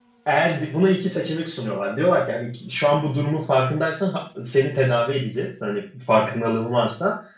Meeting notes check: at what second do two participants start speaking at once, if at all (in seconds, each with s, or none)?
none